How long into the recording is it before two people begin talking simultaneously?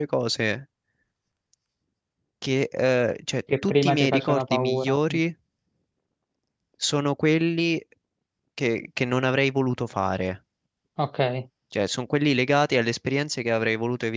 3 s

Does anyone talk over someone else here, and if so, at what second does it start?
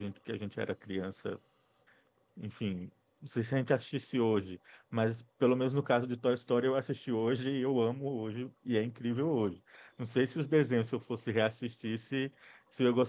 none

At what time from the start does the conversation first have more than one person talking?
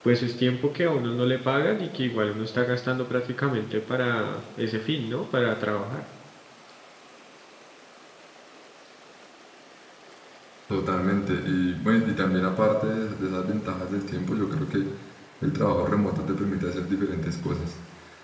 none

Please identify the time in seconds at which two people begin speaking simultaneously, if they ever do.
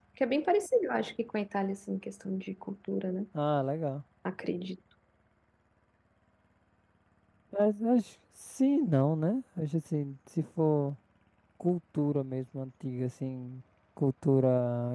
none

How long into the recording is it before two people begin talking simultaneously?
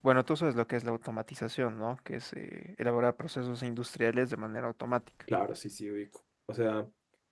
none

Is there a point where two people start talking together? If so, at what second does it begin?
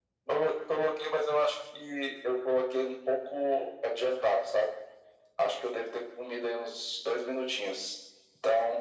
none

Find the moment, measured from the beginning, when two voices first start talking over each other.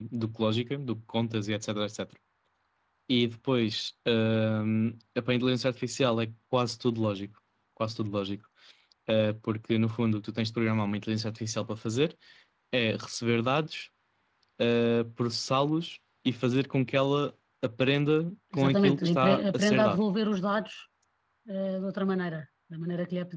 19 s

